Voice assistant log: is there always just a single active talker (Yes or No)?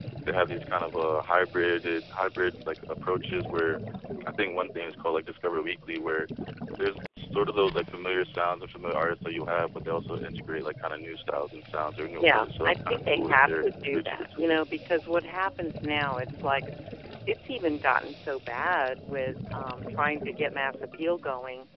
No